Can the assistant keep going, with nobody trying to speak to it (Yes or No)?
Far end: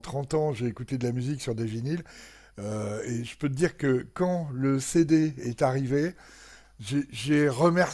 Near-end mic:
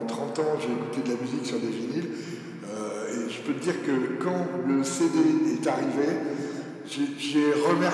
Yes